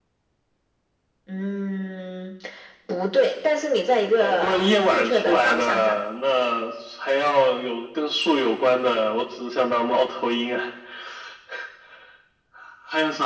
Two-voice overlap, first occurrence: 4.2 s

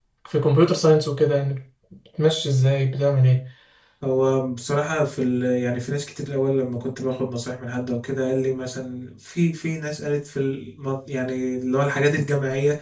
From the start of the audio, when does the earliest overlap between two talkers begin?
none

